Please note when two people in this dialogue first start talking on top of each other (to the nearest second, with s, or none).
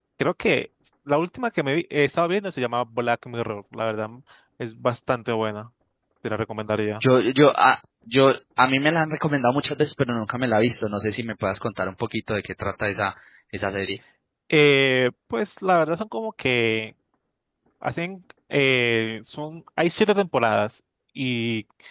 none